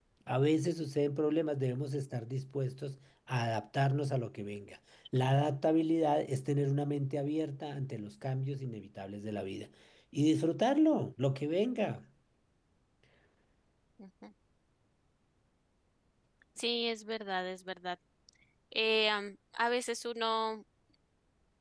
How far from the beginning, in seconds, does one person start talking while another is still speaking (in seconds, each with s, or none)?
none